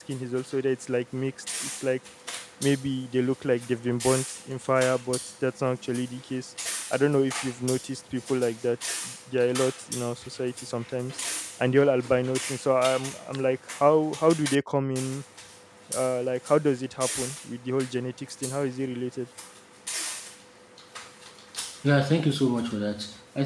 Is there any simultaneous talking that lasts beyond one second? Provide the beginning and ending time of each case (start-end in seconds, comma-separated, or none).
none